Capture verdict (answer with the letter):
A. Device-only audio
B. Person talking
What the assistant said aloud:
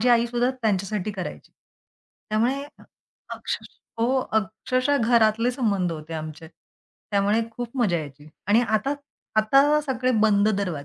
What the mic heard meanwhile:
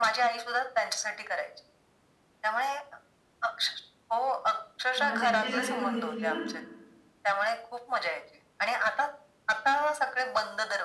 B